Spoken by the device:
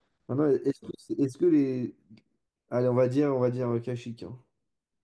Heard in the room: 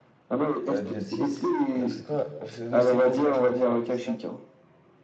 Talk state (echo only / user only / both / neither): both